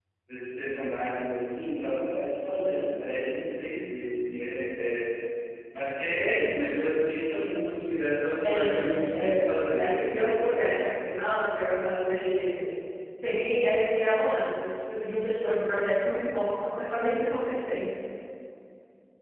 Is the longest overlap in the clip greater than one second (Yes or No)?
Yes